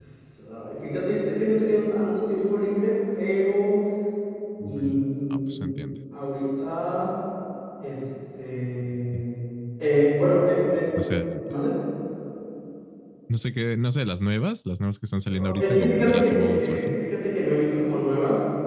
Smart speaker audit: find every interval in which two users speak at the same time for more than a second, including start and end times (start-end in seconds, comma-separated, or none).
4.6-6.0, 15.3-17.0